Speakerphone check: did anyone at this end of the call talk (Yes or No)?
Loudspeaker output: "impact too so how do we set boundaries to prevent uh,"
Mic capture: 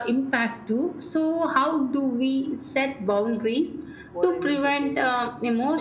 Yes